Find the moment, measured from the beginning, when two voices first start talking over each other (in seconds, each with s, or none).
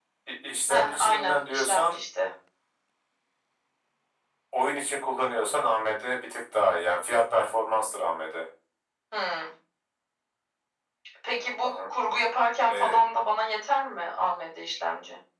0.7 s